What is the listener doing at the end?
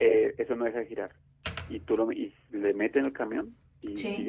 listening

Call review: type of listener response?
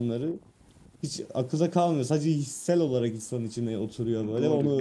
taking over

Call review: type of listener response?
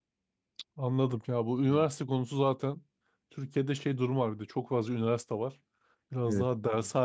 listening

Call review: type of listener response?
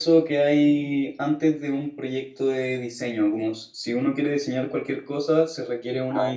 listening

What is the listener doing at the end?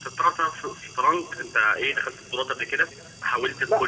taking over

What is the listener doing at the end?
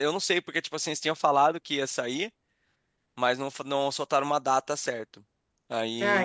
listening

